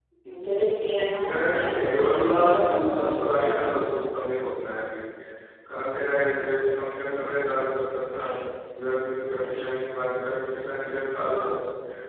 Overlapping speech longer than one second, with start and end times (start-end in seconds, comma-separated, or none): 1.3-3.7